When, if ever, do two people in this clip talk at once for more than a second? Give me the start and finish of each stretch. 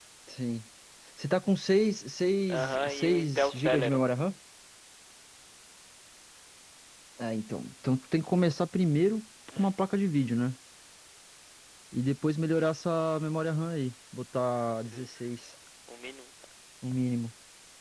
2.5-4.0

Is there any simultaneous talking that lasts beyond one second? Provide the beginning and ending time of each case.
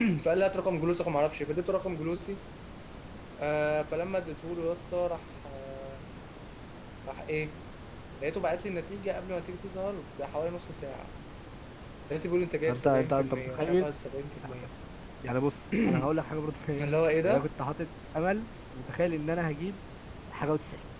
12.7-13.9

